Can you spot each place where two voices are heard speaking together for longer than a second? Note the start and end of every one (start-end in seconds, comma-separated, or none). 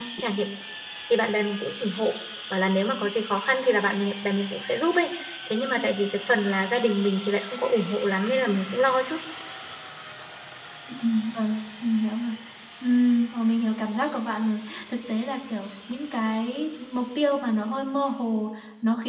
none